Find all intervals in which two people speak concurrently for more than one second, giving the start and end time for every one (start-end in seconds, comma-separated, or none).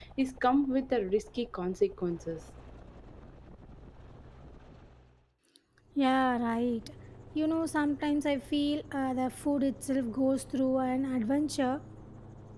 none